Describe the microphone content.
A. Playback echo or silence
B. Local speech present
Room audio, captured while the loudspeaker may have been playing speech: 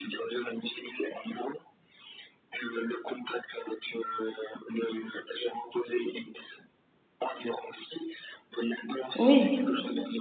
B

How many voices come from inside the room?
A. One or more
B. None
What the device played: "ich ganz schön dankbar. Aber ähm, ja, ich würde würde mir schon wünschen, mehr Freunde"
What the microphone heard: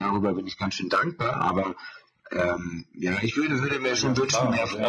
A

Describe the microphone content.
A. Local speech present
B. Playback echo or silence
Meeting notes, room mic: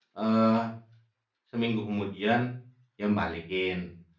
A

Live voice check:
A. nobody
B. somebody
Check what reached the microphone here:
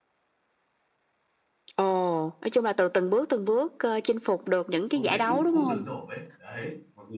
B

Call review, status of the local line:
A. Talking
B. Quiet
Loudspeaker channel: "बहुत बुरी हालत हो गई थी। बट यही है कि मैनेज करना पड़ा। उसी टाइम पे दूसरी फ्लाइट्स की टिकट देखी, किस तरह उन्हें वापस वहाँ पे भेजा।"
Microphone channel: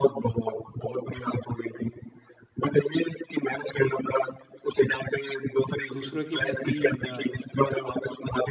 A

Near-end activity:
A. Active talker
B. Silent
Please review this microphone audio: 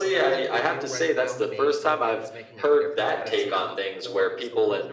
A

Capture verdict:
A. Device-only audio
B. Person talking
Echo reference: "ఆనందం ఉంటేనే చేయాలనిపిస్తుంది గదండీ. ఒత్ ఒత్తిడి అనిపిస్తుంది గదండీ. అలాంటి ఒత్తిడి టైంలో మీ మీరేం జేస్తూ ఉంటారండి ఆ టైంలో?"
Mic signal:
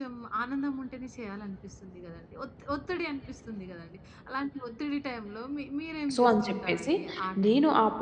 B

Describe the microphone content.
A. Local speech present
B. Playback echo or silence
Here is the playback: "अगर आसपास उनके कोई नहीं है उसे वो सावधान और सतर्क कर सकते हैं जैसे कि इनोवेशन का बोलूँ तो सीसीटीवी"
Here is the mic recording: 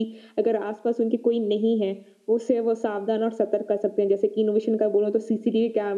B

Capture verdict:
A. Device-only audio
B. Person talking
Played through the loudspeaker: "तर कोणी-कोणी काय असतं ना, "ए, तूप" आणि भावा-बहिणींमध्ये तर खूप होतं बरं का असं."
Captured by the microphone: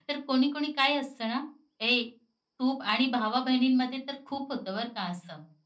A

